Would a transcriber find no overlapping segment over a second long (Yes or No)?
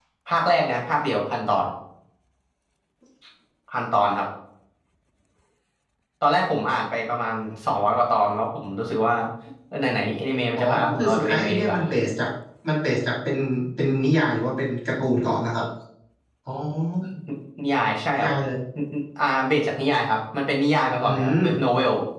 No